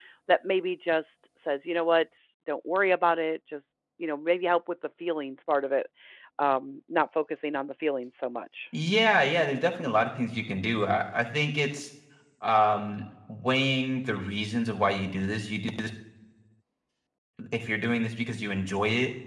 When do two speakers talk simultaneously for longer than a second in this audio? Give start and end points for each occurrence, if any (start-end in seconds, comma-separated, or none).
none